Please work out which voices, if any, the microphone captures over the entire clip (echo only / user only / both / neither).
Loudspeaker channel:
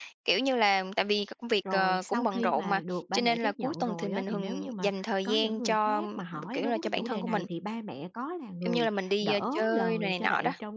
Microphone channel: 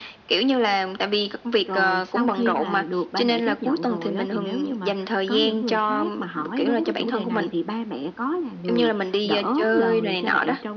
echo only